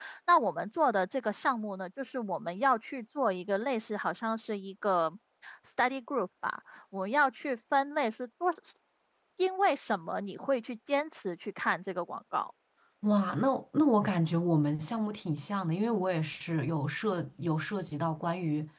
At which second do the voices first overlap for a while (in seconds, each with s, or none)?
none